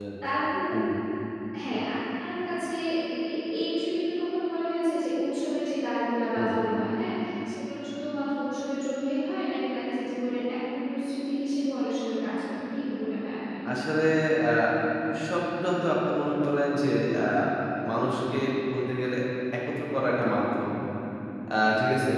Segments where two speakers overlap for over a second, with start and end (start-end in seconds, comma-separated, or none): none